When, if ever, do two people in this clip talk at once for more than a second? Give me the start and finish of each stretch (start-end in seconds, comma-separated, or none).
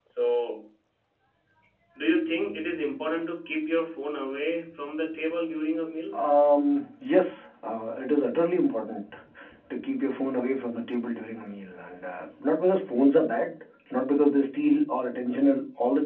none